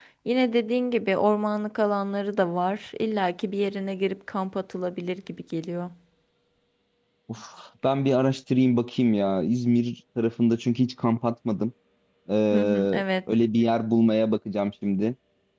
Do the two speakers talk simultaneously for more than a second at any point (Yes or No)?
No